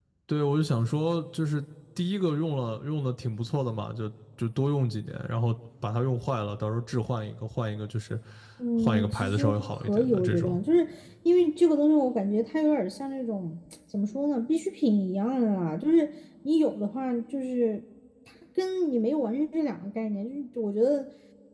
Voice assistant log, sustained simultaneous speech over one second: present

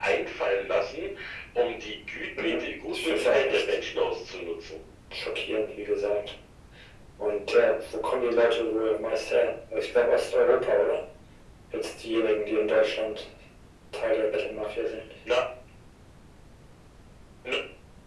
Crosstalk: present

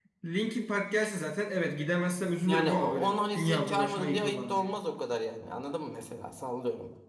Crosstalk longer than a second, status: present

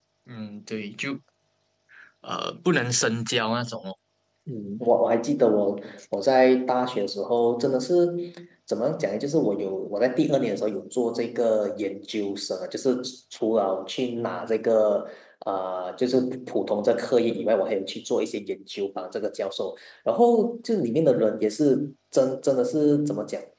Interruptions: none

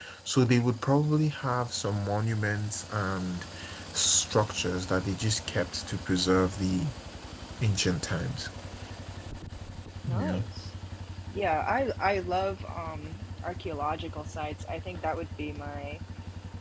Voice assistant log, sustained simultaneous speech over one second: none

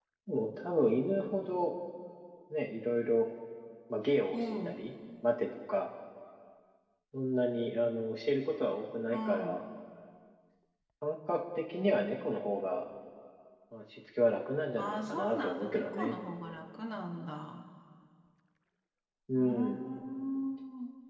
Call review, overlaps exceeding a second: present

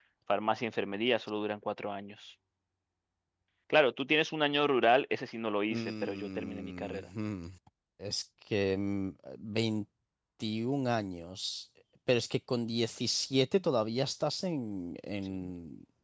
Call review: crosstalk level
present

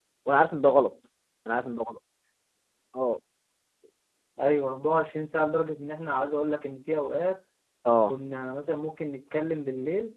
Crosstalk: none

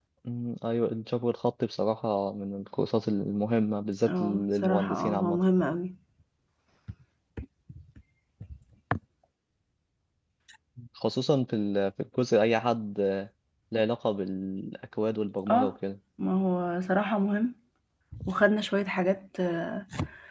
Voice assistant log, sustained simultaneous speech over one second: present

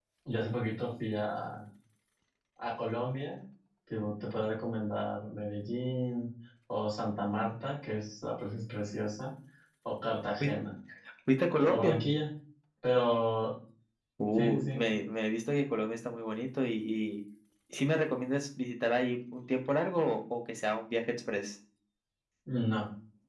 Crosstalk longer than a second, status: none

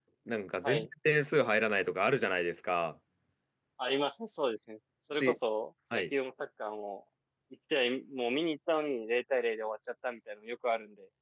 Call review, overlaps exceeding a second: none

